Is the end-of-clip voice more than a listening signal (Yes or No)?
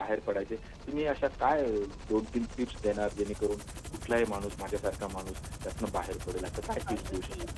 Yes